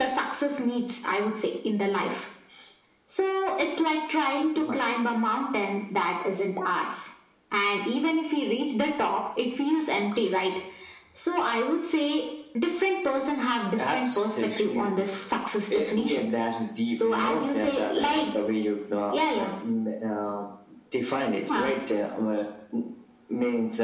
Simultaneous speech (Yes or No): Yes